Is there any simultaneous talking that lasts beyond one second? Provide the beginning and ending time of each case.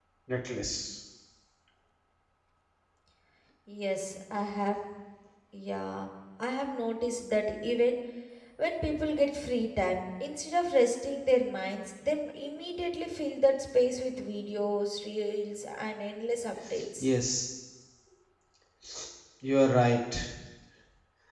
none

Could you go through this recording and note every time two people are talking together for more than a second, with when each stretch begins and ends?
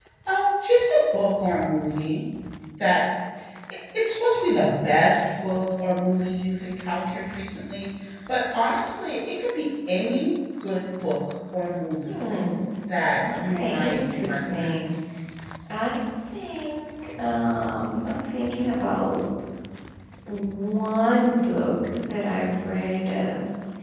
13.3-14.8

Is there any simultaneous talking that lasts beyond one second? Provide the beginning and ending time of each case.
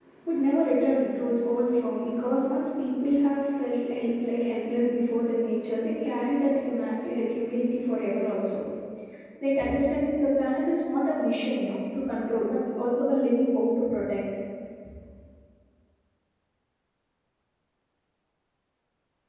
none

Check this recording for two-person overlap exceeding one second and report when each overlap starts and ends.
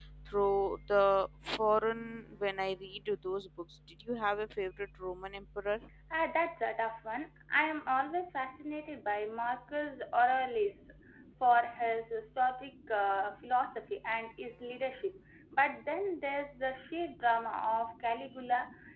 none

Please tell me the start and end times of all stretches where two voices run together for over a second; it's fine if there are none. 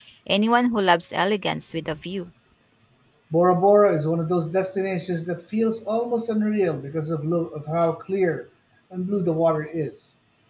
none

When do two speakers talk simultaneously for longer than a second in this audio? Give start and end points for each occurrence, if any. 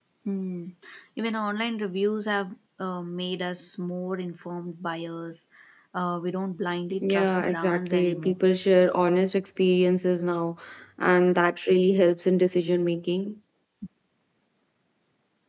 7.0-8.4

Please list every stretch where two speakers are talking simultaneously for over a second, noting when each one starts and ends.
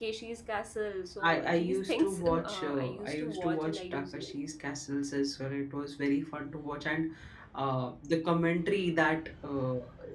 1.3-4.3

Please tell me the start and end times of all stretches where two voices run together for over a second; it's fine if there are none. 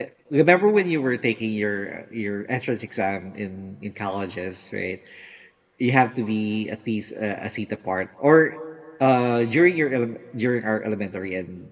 none

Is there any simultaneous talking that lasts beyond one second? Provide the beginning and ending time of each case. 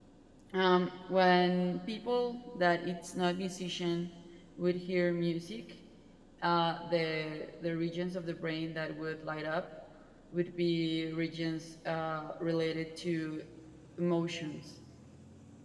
none

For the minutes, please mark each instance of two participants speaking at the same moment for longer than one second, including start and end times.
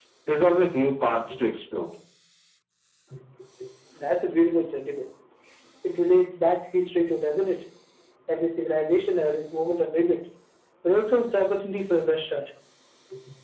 none

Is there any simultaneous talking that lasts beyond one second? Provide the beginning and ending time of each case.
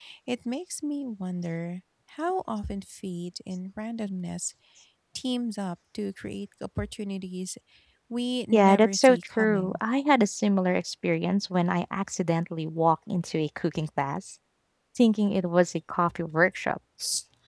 8.5-9.8

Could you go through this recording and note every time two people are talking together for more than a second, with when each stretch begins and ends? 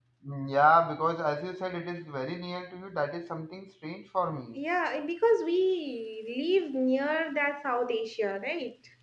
none

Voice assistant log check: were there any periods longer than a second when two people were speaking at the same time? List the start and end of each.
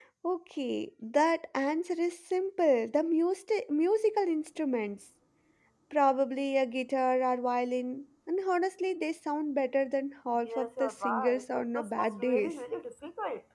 10.4-12.5

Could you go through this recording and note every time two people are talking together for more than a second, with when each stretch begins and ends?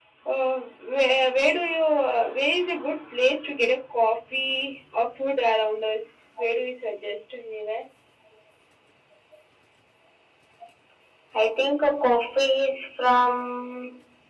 none

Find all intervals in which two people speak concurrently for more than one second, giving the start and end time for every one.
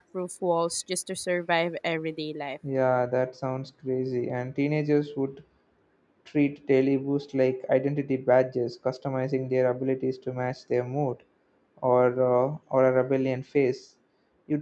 none

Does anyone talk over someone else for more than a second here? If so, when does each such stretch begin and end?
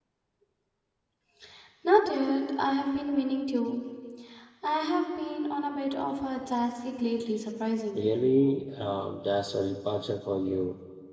none

